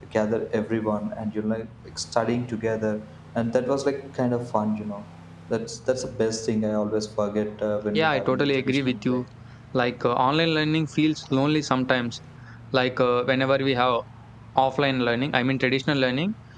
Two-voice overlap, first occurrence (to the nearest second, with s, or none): 8 s